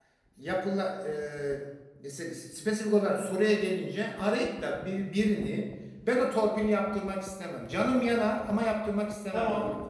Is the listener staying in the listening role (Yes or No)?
No